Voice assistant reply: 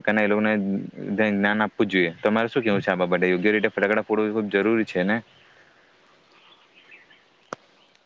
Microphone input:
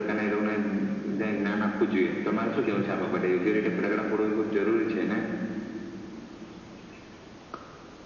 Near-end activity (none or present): none